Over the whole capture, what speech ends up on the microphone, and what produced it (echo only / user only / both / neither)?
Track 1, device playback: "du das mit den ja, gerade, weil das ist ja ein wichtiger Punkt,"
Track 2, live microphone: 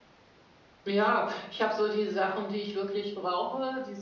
user only